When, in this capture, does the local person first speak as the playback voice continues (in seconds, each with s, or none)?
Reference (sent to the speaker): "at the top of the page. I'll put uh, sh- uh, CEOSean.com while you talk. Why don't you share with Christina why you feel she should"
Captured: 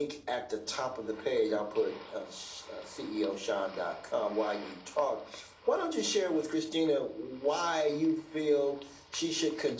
none